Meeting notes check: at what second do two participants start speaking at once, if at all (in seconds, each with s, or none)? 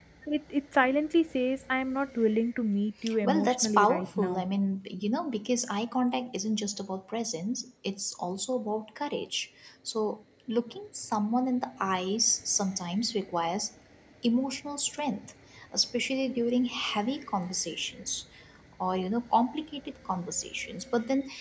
3.1 s